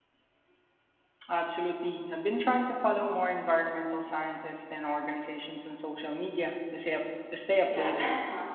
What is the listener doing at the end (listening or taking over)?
taking over